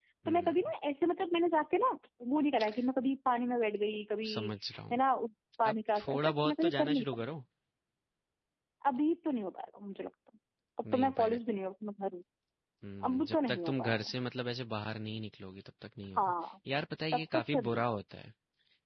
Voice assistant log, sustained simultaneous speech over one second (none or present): present